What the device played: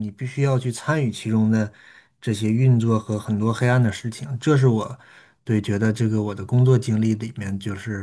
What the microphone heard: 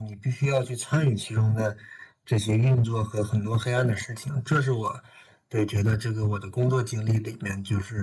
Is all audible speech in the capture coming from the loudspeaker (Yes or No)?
Yes